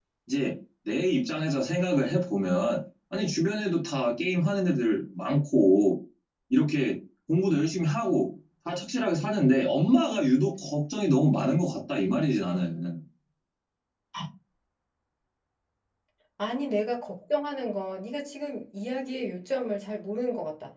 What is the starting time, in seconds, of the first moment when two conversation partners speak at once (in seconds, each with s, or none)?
none